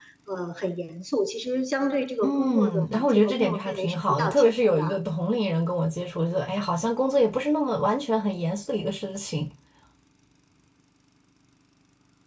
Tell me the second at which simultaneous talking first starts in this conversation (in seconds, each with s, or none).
2.2 s